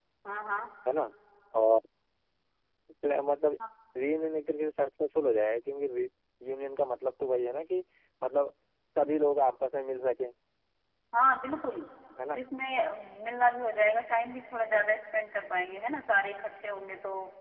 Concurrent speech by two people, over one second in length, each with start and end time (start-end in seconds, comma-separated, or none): none